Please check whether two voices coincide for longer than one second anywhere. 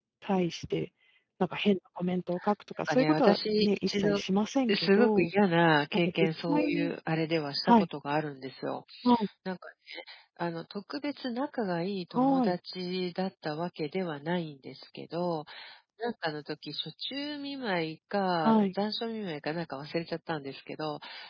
Yes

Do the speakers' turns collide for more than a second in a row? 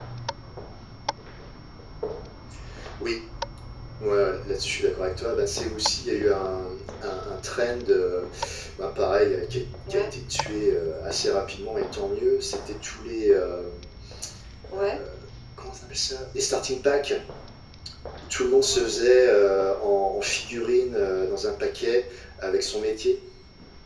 No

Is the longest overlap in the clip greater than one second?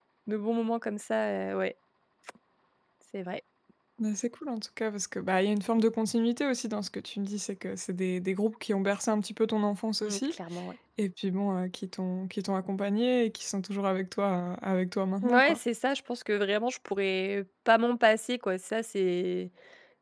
No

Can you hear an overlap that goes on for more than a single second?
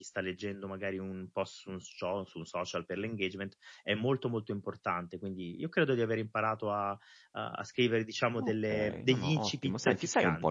Yes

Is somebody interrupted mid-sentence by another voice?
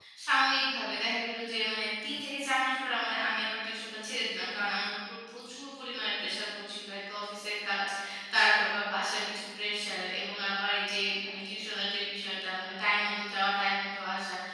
No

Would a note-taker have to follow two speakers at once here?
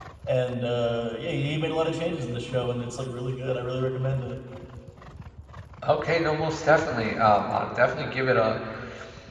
No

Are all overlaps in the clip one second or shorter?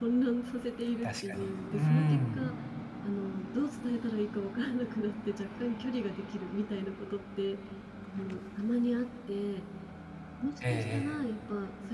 No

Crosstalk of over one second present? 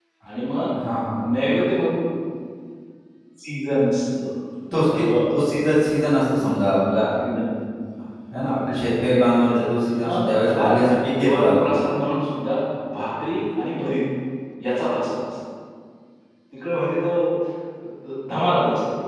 Yes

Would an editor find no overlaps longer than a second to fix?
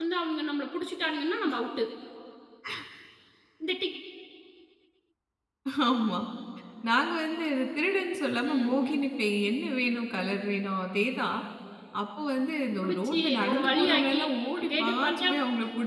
No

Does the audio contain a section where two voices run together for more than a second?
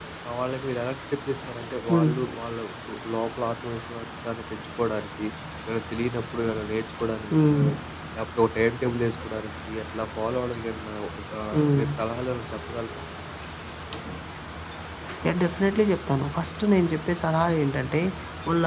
No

